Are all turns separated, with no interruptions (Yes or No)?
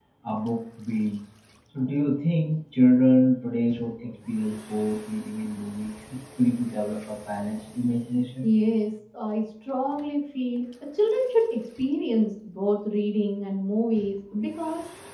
Yes